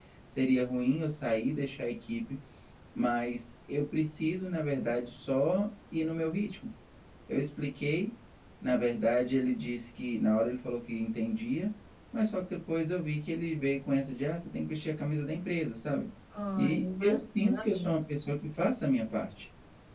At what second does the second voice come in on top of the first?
16.6 s

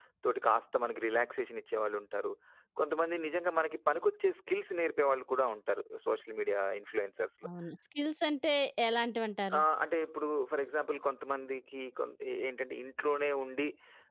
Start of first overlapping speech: none

